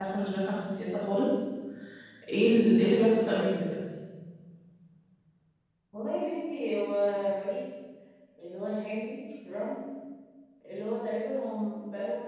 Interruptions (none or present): none